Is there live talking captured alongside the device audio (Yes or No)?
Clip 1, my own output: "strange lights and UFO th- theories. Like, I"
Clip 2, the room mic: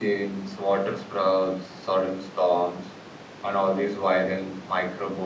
Yes